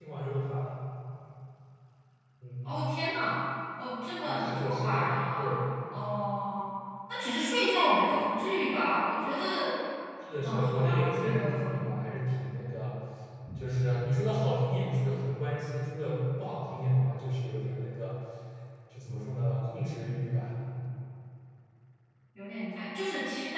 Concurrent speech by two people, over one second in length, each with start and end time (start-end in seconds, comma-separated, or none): 4.2-5.6, 10.4-11.8